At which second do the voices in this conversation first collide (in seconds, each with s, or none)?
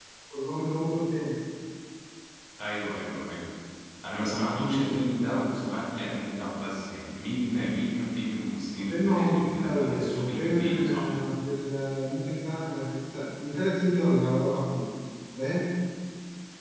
8.8 s